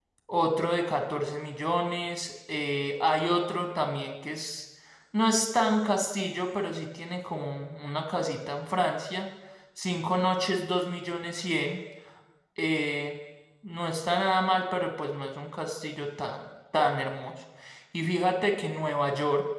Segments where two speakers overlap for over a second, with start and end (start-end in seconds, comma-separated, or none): none